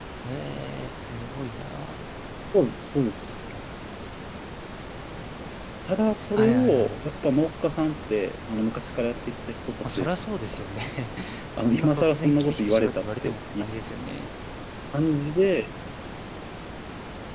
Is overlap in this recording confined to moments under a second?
No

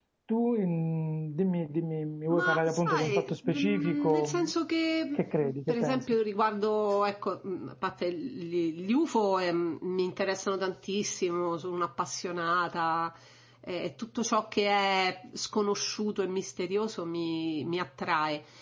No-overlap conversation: No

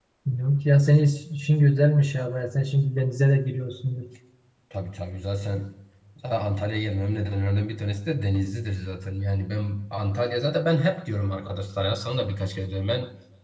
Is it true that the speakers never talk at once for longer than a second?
Yes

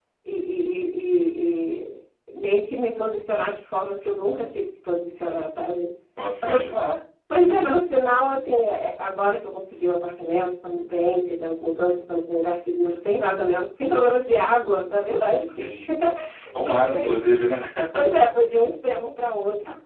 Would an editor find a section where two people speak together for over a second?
No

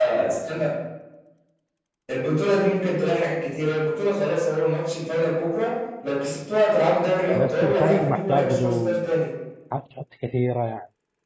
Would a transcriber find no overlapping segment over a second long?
No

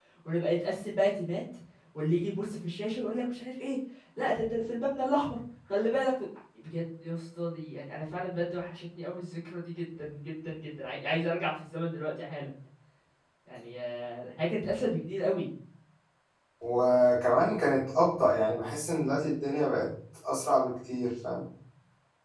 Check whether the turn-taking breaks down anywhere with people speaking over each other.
No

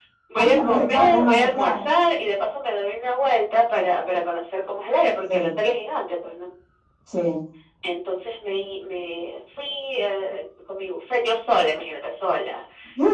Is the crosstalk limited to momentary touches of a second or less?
No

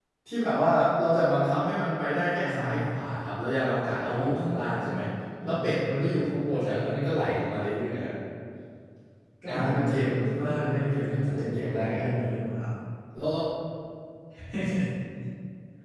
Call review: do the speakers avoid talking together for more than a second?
No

